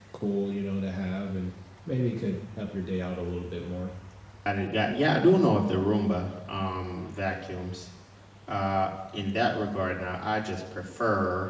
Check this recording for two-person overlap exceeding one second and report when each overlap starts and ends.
none

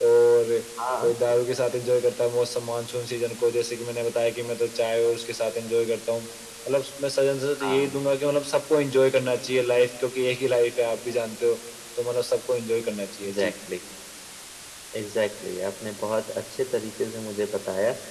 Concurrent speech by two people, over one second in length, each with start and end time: none

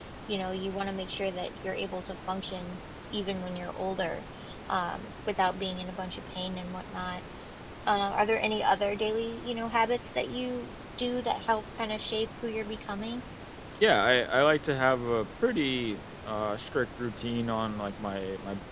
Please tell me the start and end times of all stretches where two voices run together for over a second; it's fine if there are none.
none

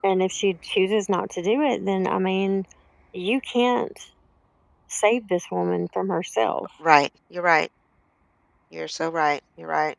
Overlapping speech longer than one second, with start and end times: none

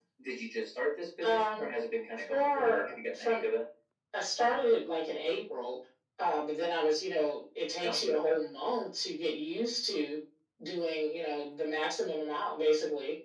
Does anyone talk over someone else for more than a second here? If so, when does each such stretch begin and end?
2.2-3.5

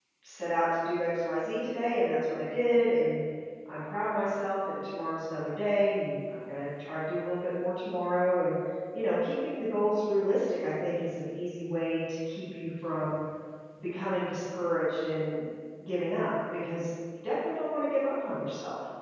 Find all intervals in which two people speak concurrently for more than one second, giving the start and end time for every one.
none

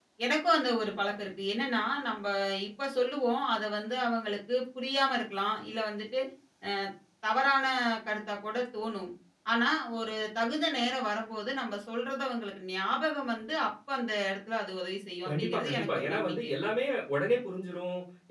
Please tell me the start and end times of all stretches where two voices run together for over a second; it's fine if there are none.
15.3-16.5

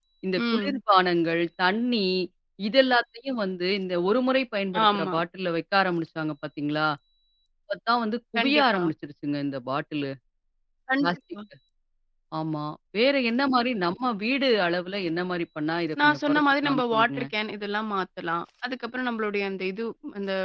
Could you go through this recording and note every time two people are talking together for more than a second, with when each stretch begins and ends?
16.0-17.3

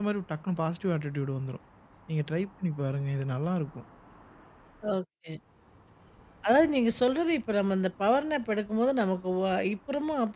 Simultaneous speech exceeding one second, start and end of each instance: none

